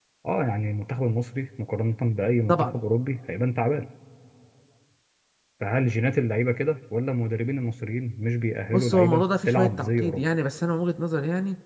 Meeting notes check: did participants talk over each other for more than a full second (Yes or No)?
Yes